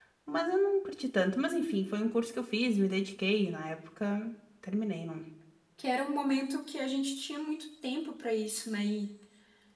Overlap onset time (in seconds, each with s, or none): none